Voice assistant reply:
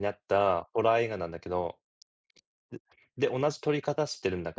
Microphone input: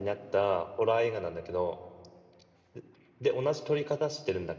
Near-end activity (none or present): none